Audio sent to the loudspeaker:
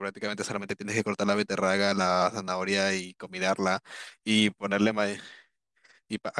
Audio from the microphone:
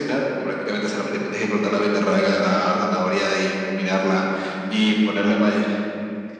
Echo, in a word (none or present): present